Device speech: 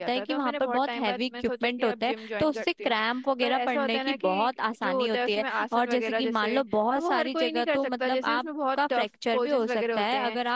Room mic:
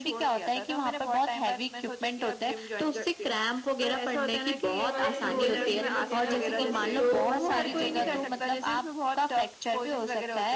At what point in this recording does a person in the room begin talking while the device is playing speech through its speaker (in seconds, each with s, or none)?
4.8 s